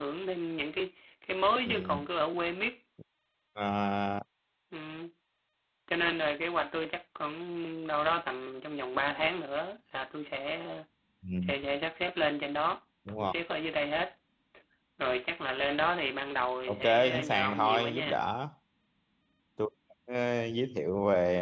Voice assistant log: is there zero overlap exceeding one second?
No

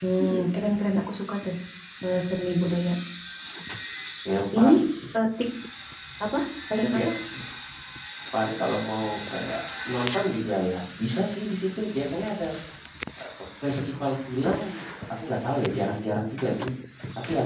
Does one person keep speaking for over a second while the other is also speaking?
No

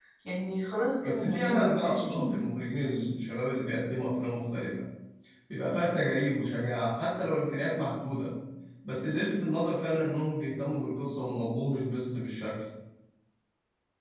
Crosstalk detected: Yes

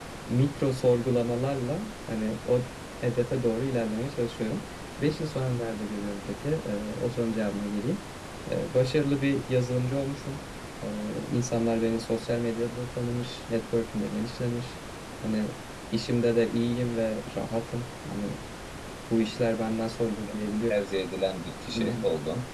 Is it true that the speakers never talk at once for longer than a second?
Yes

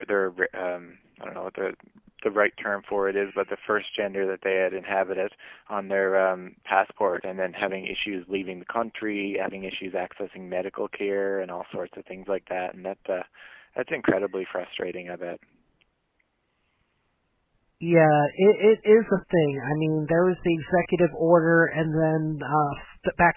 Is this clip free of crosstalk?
Yes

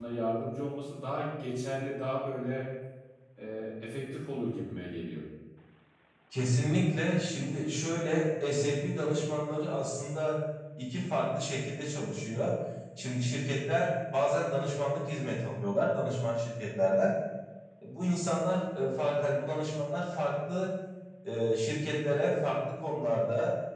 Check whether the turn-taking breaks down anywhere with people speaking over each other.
No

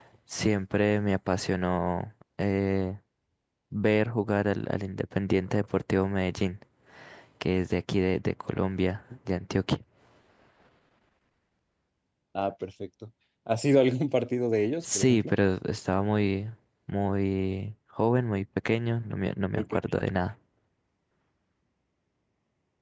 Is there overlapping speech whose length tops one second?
No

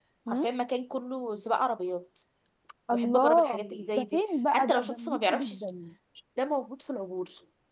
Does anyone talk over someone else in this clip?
Yes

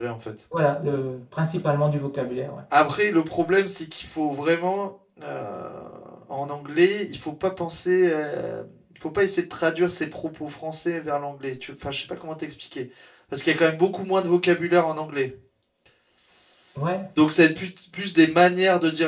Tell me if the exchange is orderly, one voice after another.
Yes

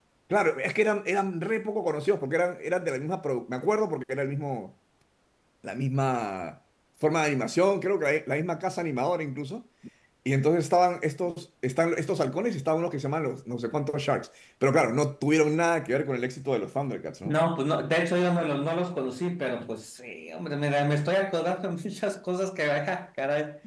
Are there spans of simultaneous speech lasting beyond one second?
No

